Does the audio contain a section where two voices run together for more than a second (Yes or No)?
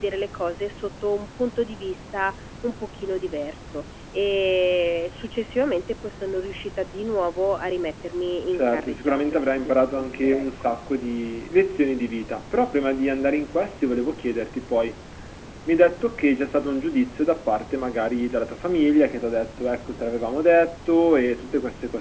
Yes